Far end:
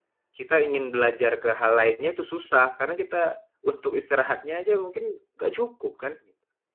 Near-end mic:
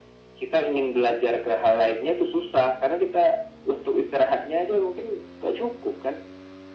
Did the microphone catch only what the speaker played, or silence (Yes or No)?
Yes